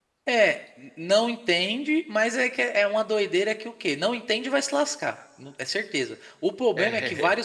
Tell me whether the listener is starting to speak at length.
No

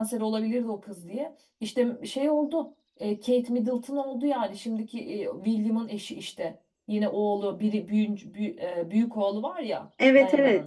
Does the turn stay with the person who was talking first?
No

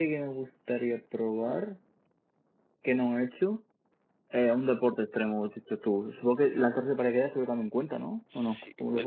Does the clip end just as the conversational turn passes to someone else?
Yes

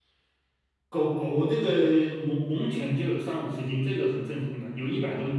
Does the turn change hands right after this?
Yes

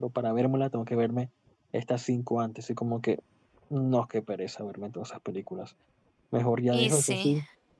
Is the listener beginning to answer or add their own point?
No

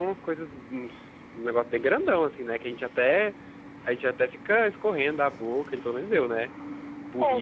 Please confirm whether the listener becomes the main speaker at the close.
No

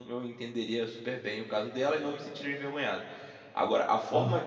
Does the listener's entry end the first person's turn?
No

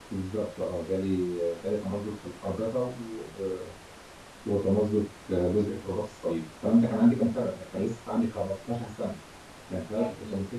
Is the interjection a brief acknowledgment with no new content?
Yes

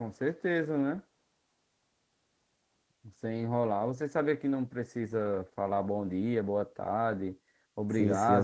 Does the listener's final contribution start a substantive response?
Yes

